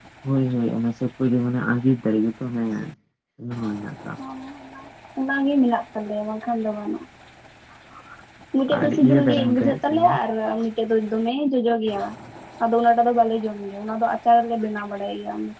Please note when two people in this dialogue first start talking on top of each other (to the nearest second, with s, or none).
9 s